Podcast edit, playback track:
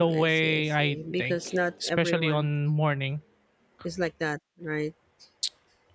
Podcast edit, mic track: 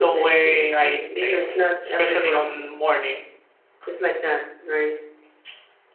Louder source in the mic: echo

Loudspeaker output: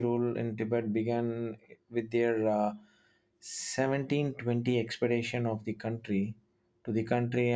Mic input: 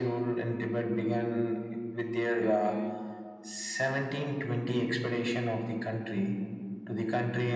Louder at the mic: echo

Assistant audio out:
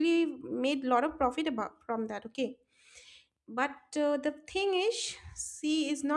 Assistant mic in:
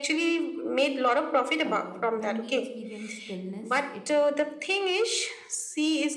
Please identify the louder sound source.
echo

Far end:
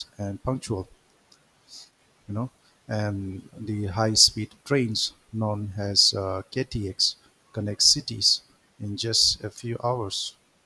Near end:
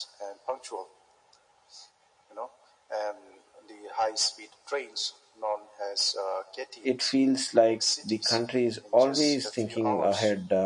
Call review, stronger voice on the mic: user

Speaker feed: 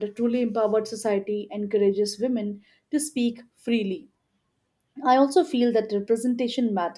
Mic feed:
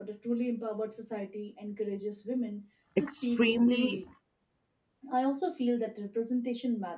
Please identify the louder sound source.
user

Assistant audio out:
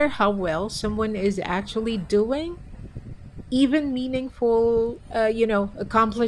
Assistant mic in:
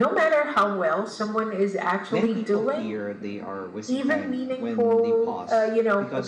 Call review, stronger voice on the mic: echo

